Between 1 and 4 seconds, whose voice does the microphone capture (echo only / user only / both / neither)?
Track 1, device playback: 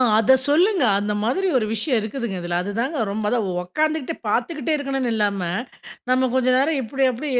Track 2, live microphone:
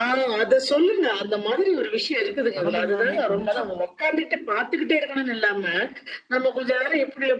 both